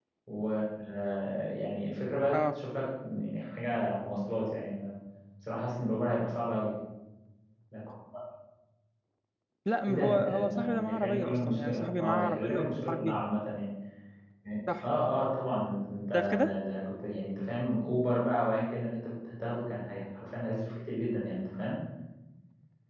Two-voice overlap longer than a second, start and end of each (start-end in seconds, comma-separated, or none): 9.9-13.2